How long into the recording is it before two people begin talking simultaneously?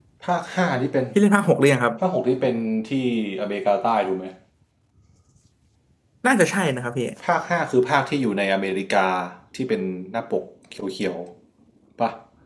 none

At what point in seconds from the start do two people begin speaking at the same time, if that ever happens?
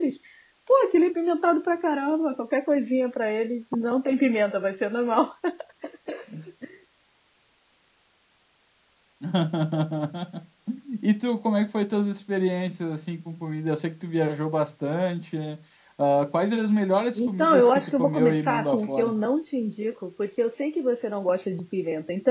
17 s

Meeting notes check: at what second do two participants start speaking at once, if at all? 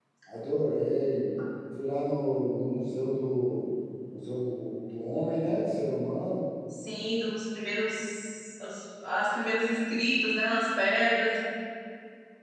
none

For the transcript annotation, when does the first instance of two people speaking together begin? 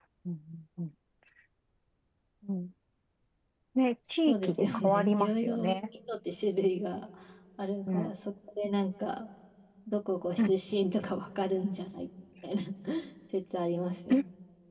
4 s

